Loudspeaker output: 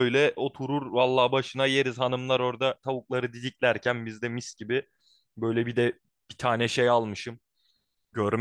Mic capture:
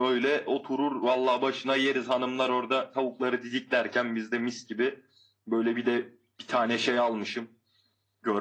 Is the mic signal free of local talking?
Yes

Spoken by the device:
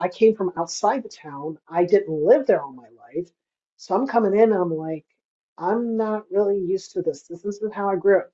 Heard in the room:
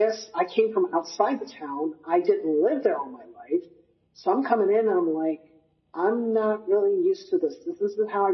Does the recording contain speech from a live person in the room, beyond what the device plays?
No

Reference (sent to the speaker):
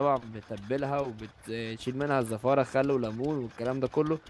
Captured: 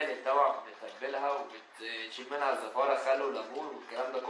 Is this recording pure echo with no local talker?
Yes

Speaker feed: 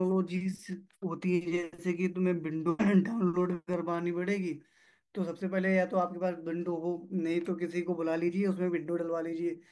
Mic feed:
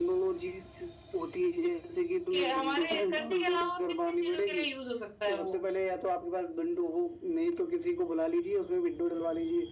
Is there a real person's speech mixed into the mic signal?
Yes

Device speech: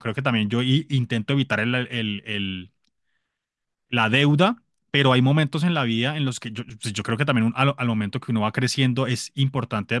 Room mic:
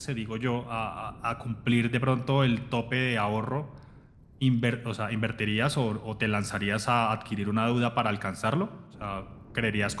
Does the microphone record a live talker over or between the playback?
Yes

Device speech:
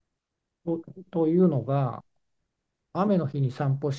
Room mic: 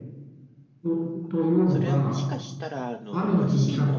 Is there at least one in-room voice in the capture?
Yes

